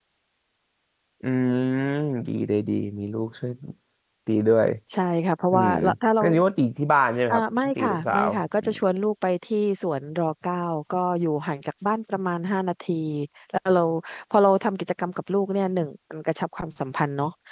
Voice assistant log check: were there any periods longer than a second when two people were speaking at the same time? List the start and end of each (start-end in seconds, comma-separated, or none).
7.3-8.7